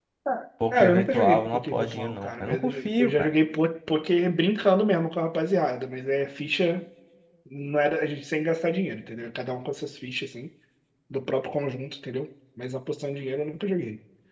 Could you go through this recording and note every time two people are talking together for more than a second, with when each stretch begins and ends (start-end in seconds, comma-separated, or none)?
0.7-3.3